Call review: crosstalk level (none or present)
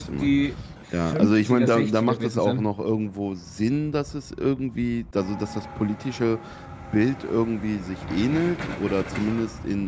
present